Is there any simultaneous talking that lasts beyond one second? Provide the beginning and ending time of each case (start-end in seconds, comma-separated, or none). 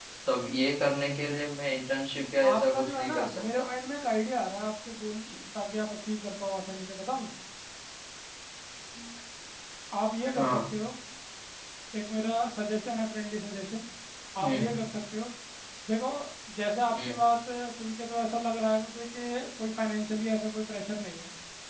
2.4-3.7